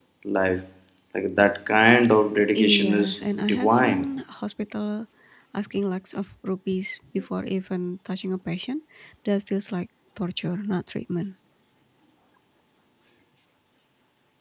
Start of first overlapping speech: 2.5 s

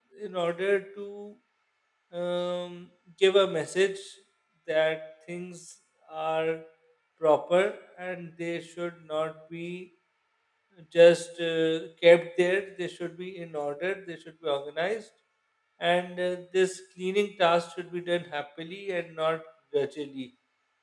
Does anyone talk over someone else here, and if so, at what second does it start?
none

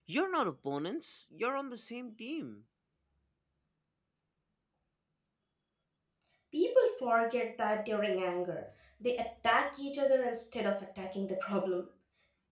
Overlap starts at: none

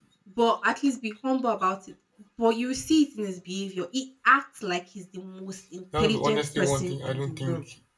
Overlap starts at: 5.9 s

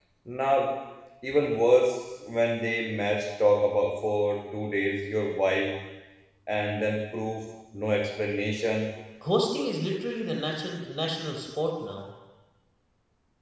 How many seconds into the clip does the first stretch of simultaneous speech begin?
none

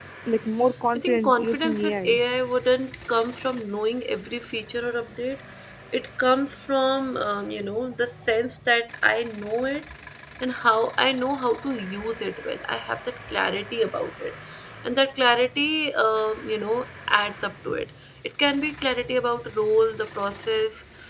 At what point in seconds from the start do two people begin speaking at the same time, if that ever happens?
1.0 s

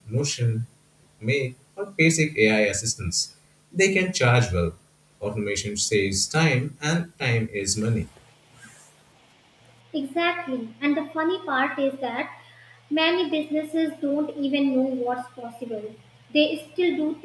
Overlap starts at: none

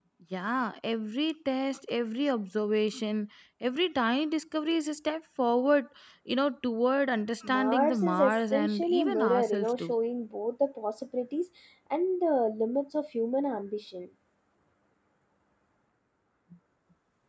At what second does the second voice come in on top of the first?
7.4 s

